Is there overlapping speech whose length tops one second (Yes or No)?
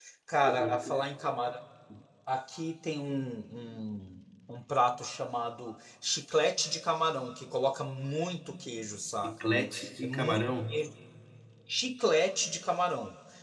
Yes